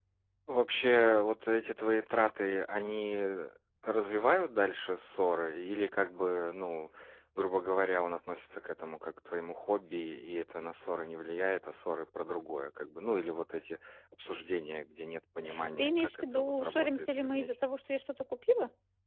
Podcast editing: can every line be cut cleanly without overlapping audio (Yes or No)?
No